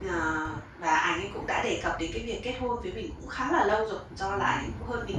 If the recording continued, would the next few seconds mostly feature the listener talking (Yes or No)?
No